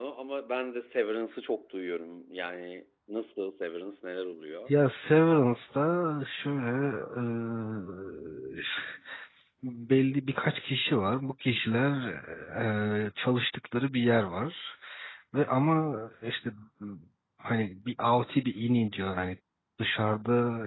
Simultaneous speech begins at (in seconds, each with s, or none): none